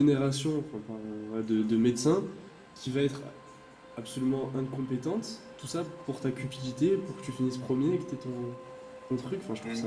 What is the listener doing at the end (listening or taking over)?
taking over